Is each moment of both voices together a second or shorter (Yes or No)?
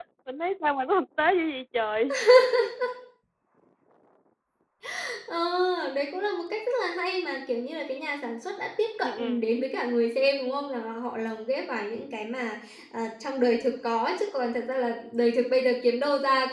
Yes